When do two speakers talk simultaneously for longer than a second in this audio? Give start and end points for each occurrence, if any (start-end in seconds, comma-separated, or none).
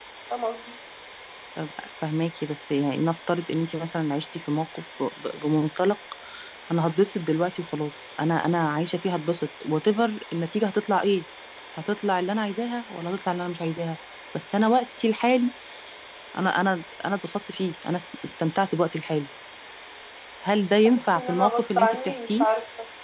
20.8-22.4